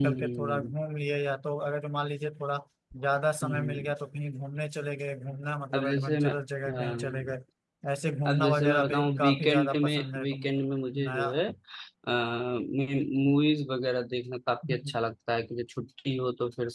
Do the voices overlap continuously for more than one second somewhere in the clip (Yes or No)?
Yes